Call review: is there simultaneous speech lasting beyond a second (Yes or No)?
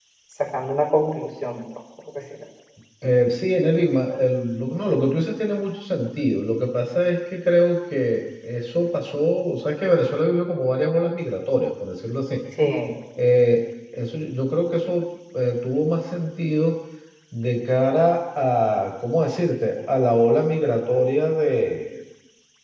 No